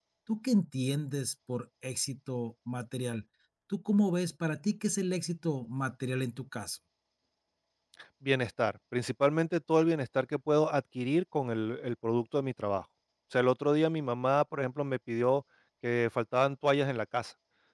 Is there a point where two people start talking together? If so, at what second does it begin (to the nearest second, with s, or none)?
none